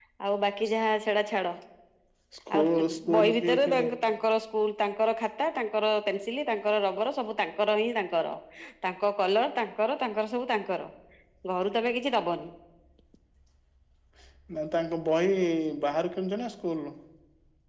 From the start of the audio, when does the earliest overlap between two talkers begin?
2.5 s

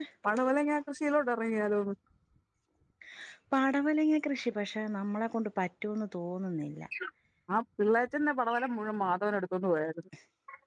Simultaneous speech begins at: none

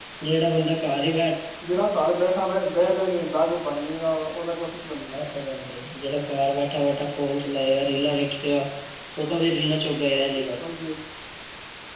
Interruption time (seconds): none

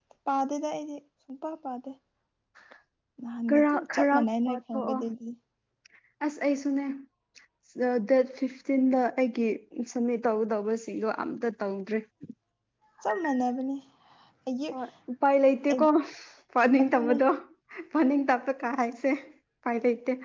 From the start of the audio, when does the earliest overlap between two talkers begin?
3.5 s

